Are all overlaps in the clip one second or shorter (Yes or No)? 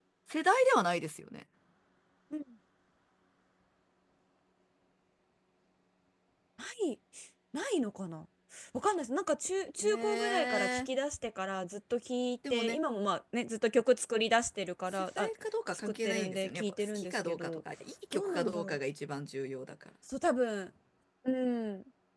No